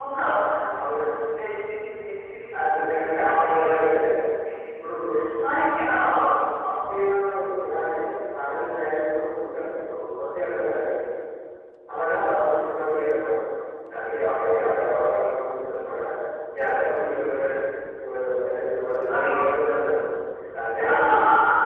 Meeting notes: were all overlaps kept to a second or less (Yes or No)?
No